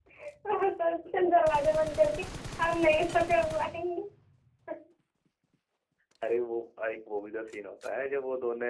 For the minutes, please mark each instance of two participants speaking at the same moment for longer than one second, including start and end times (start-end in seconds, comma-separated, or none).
none